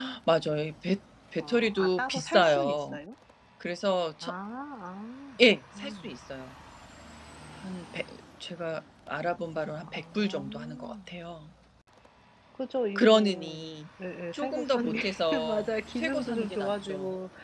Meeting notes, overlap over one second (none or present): present